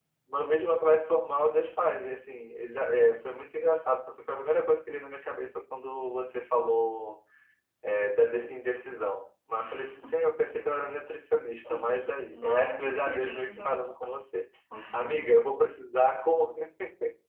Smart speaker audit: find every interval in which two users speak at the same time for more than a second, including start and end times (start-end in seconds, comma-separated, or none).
12.3-13.8